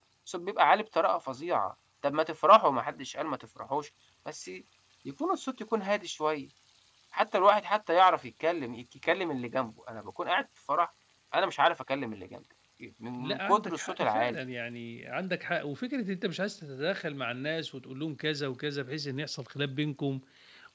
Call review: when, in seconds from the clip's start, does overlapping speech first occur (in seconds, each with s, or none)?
13.2 s